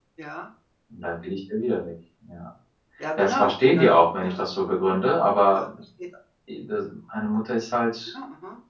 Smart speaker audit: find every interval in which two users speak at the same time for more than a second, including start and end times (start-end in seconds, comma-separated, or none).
3.2-4.4